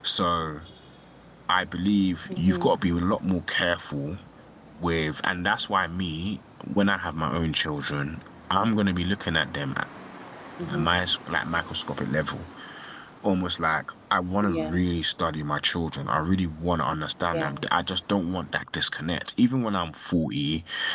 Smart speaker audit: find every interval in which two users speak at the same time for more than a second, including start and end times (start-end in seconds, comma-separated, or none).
none